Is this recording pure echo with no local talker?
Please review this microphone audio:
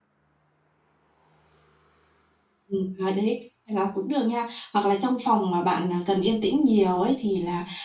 No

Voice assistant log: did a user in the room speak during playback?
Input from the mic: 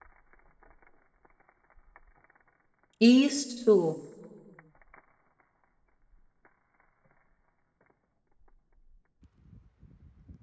Yes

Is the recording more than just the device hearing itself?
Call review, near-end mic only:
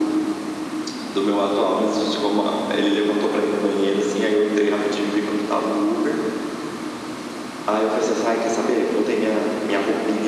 No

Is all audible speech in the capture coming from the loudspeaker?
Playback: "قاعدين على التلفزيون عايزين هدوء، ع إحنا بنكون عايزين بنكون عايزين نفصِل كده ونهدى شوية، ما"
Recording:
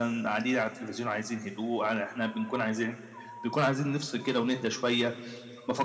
Yes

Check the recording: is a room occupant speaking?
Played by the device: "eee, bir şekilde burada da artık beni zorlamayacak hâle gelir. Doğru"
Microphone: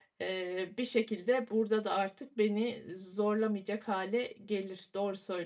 No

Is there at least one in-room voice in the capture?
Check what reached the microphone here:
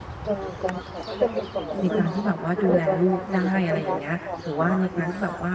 Yes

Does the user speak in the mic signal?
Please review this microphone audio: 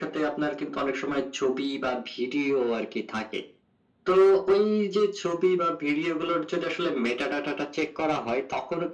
No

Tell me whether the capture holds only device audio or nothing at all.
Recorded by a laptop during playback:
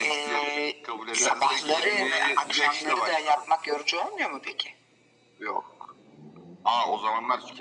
Yes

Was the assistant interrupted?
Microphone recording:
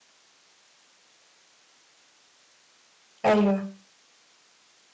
Yes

